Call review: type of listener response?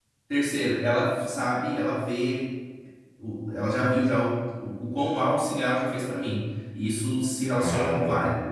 listening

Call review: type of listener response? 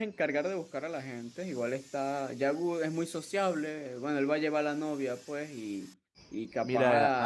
taking over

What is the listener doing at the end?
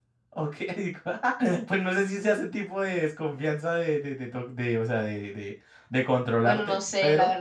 taking over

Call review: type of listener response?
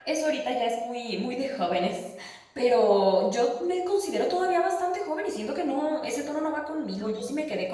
listening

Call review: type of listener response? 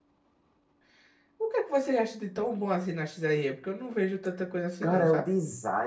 taking over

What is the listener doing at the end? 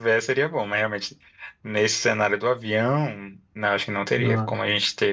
listening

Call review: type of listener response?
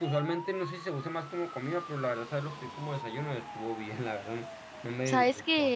taking over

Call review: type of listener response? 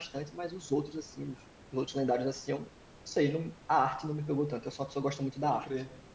taking over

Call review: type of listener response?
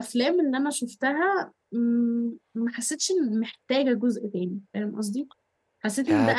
taking over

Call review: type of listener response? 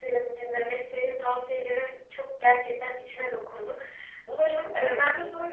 listening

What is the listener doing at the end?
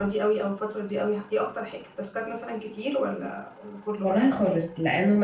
taking over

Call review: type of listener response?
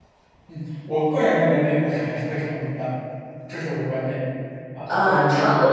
taking over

